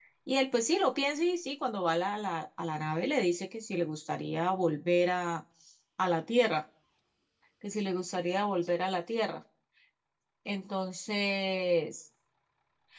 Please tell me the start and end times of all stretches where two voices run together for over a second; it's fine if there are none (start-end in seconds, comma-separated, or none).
none